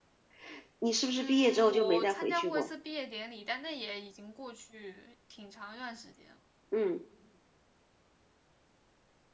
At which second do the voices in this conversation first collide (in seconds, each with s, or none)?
1.1 s